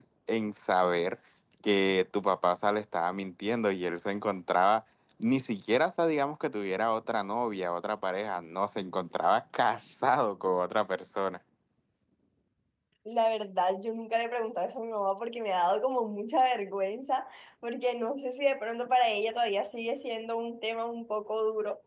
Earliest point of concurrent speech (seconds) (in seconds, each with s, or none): none